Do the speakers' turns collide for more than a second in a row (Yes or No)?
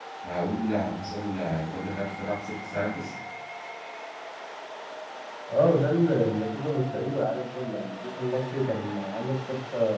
No